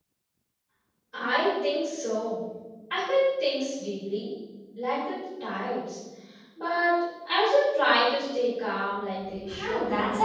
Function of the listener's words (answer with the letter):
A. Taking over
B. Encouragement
A